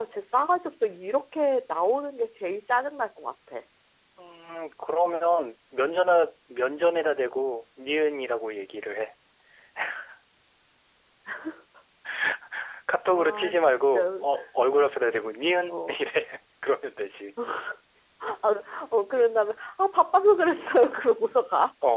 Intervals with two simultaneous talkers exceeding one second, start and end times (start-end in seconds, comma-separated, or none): 13.1-14.3